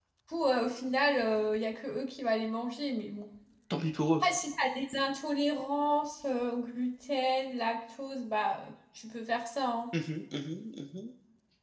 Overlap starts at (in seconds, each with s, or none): none